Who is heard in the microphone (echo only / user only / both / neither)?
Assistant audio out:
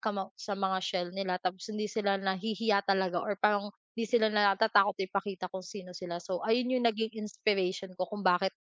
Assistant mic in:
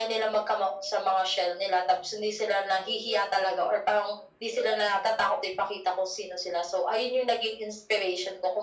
echo only